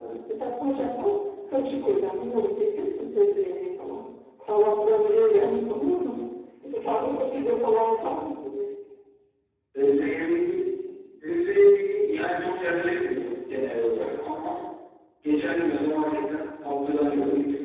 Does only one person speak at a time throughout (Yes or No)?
Yes